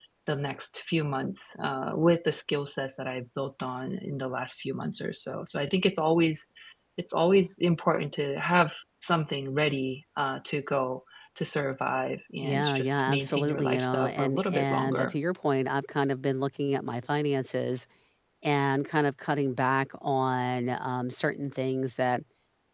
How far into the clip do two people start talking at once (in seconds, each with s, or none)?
12.4 s